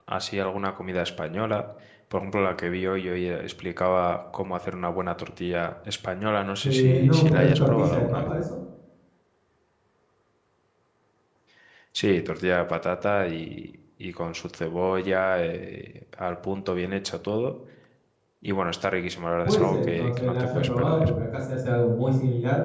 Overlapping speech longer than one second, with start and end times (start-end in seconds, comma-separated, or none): 6.6-8.3, 19.4-21.1